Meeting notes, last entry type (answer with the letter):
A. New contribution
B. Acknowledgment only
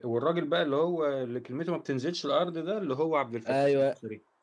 A